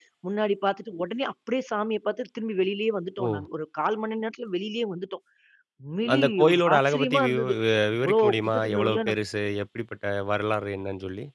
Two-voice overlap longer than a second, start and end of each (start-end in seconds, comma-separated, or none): 6.1-7.4, 8.0-9.2